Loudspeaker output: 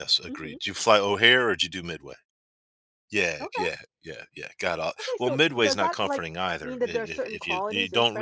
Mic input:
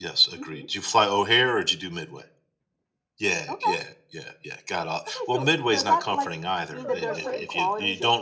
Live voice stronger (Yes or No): No